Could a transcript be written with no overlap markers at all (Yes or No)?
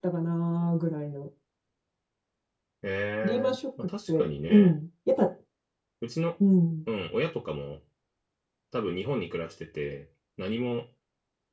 No